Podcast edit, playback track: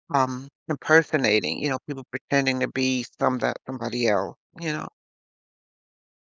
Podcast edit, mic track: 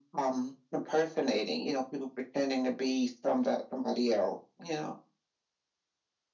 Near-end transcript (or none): none